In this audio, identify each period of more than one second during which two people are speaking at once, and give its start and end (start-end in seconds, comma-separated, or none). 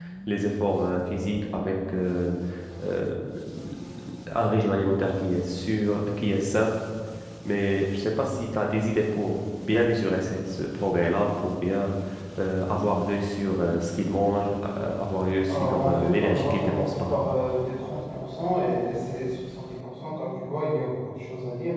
15.4-17.3